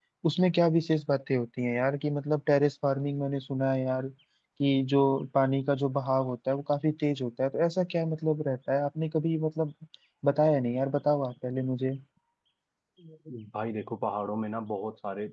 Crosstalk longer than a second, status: none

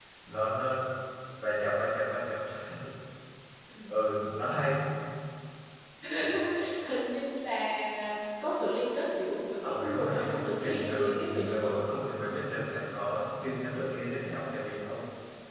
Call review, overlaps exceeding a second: present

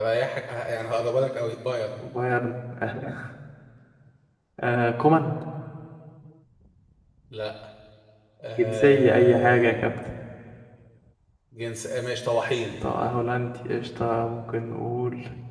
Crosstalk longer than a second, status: present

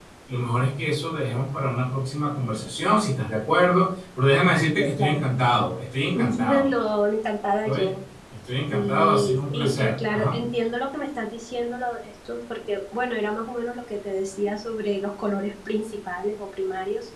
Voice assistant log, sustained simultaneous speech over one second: present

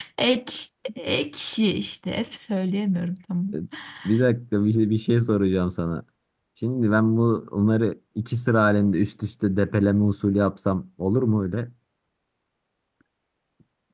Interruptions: none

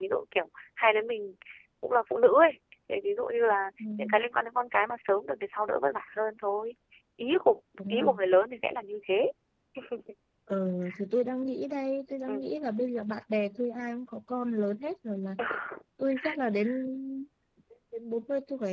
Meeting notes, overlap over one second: none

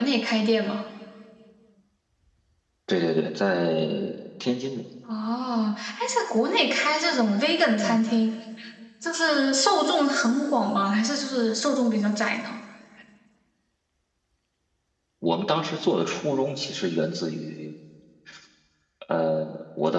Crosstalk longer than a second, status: none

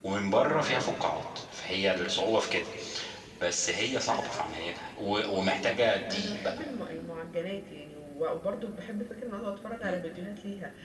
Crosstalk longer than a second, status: none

